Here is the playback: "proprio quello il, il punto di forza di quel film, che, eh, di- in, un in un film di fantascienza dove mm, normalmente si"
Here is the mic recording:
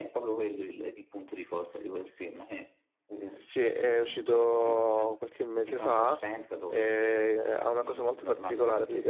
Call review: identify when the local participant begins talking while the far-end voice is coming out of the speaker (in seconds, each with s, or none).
3.3 s